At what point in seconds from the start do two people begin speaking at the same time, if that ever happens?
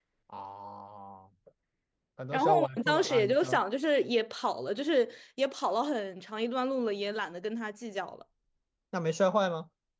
2.3 s

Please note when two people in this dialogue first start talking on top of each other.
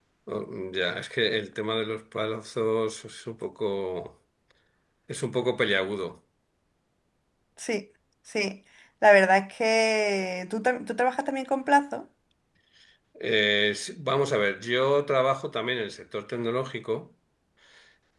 none

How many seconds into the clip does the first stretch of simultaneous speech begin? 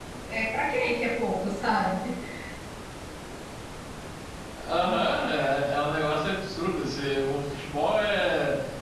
none

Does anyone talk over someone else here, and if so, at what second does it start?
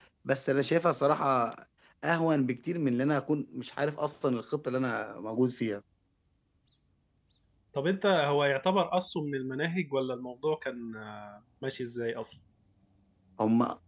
none

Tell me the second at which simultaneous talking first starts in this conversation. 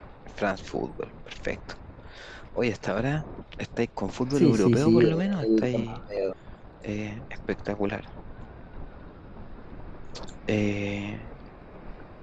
4.3 s

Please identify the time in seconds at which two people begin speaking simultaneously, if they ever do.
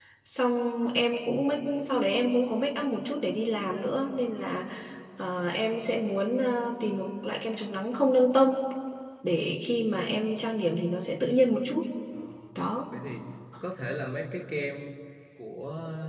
none

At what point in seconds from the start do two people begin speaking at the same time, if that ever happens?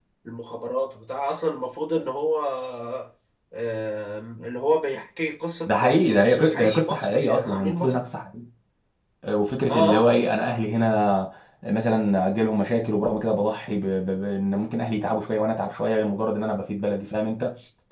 5.7 s

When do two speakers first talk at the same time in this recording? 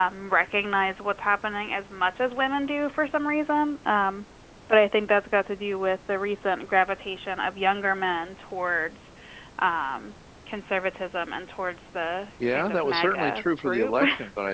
12.4 s

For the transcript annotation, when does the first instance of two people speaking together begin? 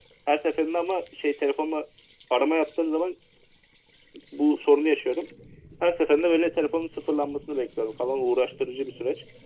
none

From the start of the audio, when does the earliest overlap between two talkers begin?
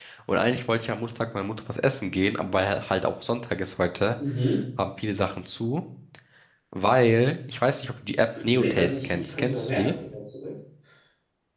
8.3 s

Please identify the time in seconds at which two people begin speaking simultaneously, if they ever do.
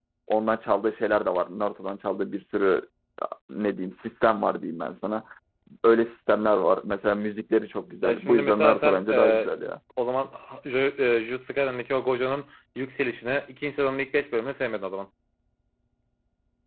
8.0 s

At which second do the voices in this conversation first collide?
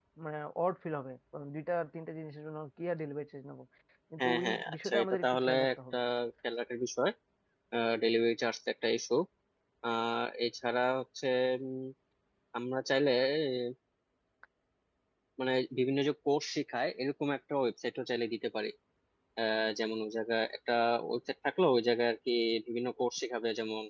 4.2 s

